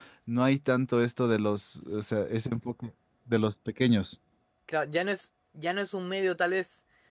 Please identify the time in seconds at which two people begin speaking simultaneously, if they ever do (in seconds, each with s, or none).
none